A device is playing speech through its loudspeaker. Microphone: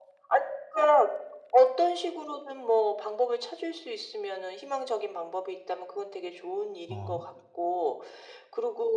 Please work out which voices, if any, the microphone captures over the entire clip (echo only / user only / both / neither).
both